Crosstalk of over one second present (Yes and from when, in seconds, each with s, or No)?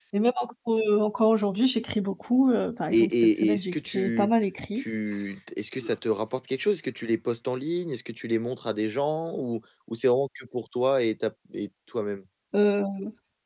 Yes, from 2.9 s